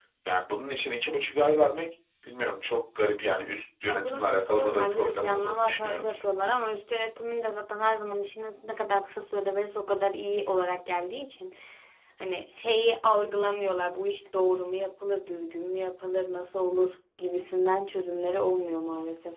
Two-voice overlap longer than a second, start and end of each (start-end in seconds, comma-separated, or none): 3.8-6.0